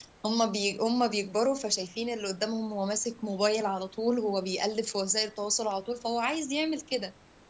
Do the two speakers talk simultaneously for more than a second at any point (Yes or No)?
No